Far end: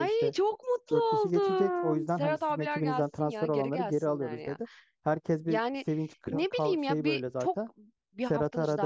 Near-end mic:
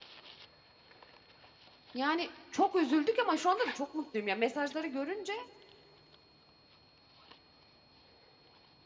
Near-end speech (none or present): present